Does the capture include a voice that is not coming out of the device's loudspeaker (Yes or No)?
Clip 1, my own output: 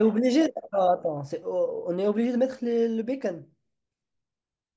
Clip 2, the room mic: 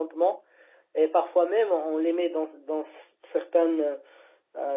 Yes